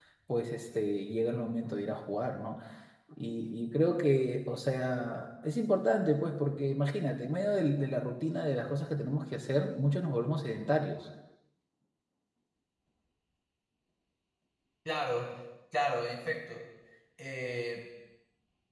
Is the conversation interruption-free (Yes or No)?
Yes